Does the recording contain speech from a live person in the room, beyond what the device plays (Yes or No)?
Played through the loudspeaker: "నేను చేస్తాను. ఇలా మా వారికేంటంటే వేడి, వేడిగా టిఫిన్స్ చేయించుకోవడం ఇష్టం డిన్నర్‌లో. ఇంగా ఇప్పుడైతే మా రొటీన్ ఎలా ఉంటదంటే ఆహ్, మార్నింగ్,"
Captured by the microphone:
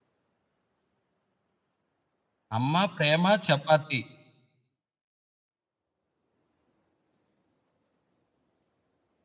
Yes